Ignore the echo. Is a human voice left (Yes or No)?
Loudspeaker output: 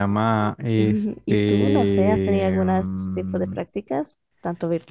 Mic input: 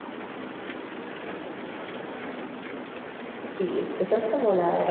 Yes